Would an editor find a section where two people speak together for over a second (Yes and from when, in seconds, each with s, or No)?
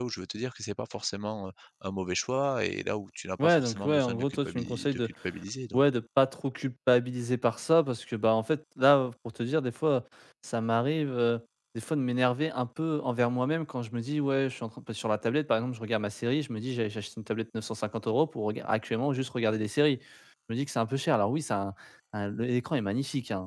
Yes, from 3.4 s